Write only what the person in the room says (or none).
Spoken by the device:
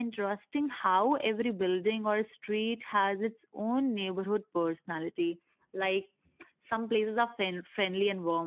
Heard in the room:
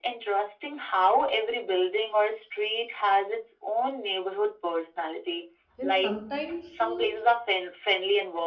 and sometimes uh,